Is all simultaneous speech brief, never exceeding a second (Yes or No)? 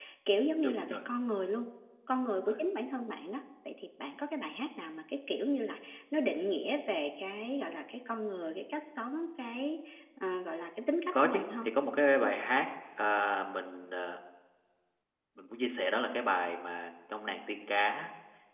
Yes